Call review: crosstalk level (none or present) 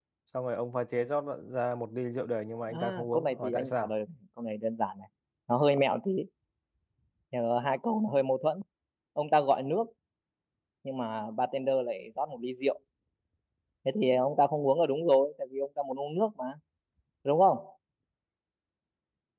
present